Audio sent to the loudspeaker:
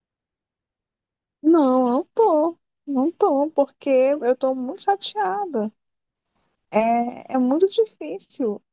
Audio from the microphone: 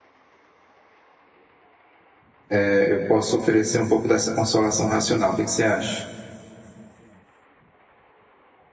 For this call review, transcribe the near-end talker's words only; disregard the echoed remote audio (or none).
eh, eu posso oferecer um pouco dessa consolação racional. O que que você acha?